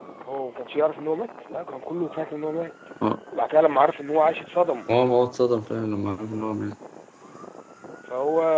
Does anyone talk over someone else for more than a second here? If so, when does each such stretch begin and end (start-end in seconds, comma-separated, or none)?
none